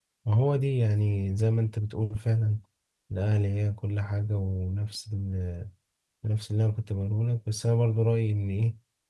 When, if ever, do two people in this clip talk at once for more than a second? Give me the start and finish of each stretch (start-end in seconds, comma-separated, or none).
none